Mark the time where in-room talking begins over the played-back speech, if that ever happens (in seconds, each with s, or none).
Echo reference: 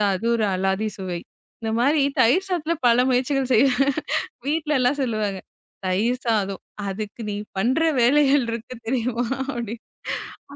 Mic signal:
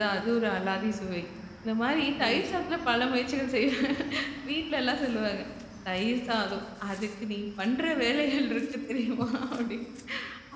2.2 s